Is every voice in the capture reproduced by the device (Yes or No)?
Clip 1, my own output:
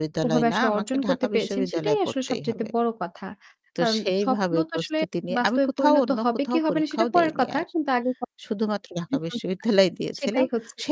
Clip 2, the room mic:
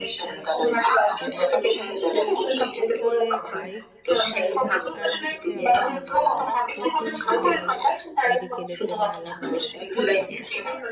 No